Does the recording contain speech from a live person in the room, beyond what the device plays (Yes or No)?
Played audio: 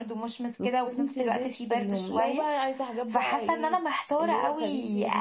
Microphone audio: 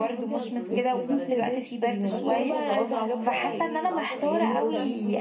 Yes